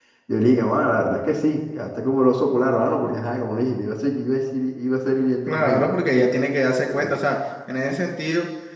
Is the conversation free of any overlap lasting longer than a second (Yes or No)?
Yes